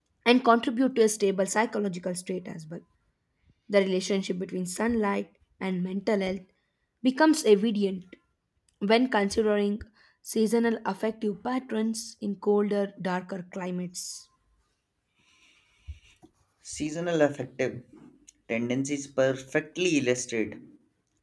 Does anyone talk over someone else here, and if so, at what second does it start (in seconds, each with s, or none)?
none